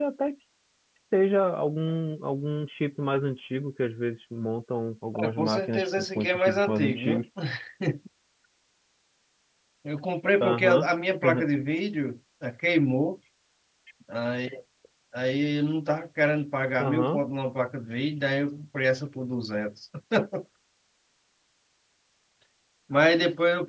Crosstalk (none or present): present